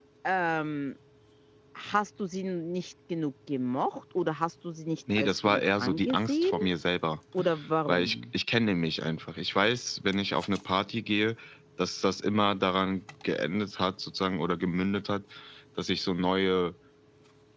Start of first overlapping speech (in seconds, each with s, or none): 5.1 s